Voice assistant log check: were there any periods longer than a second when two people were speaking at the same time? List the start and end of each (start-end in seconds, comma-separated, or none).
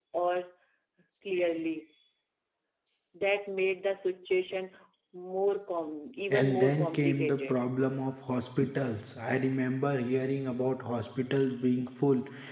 6.3-7.6